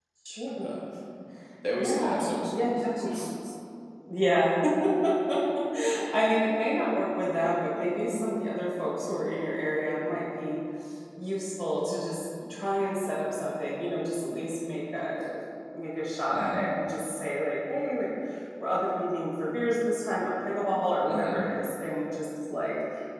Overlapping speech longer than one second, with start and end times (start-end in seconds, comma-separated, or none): 1.8-3.1